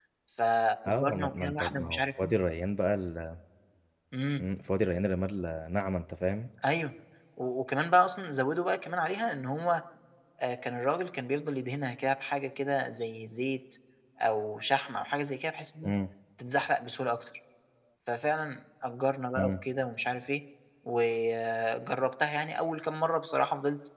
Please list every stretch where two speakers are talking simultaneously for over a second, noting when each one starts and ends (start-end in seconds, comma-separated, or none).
0.9-2.3